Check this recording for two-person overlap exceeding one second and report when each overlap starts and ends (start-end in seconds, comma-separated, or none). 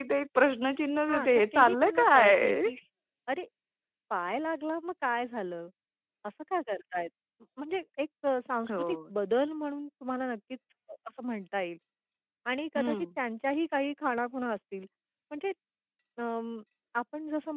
1.1-2.6